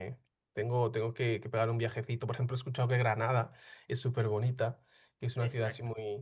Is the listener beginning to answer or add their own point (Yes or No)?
No